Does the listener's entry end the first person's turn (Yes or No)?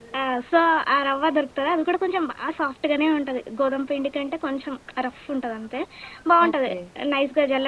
No